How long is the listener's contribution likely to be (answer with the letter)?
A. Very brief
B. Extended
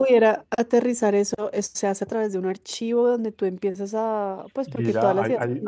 B